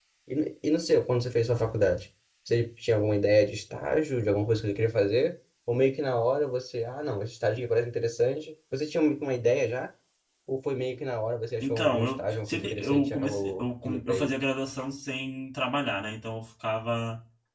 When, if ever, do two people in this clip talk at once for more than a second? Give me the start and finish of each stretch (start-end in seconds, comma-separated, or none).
11.6-14.3